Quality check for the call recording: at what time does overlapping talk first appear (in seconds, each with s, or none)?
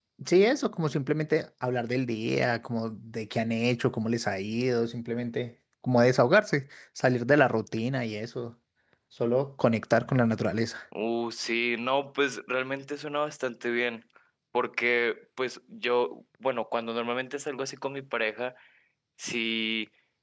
none